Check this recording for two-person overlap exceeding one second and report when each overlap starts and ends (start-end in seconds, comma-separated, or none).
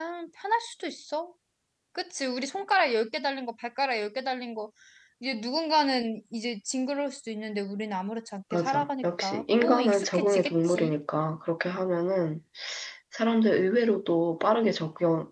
8.5-11.0